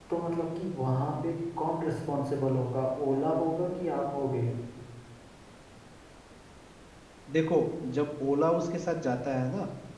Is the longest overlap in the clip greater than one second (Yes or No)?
No